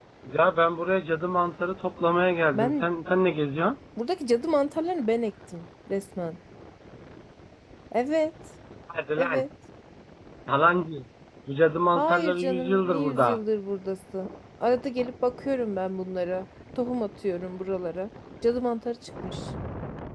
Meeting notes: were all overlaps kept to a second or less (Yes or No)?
No